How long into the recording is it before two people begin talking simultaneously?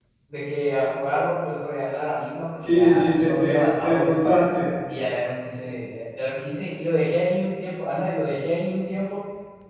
2.6 s

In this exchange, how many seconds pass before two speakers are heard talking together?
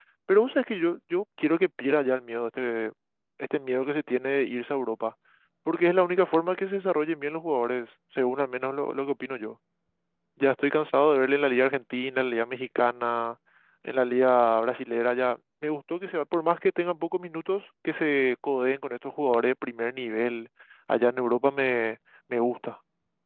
none

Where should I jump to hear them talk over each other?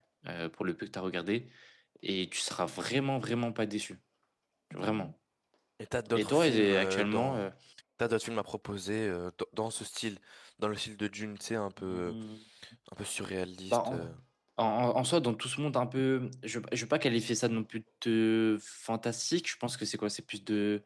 6.2 s

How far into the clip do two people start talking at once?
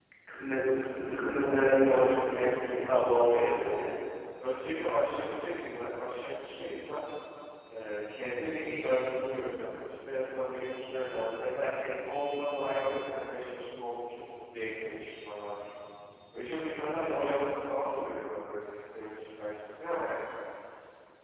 1.4 s

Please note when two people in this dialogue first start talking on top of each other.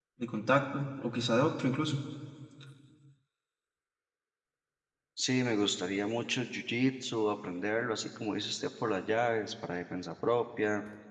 none

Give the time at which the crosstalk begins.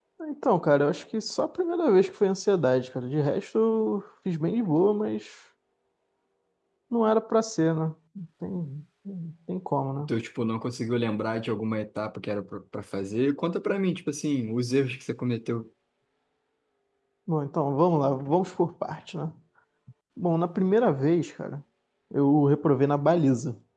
none

